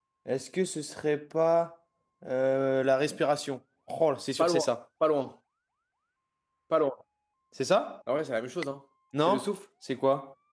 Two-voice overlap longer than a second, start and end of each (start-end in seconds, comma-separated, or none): none